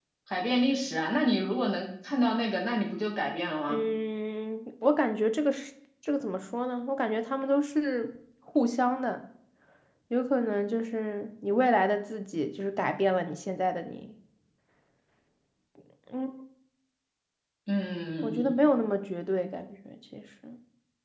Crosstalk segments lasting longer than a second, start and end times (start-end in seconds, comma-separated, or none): none